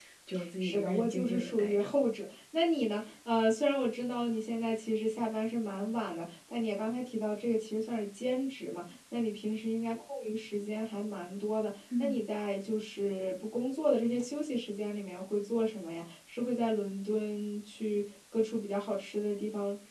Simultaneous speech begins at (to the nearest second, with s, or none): 1 s